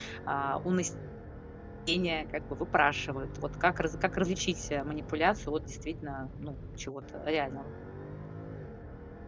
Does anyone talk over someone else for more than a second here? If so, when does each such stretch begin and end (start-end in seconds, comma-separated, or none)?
none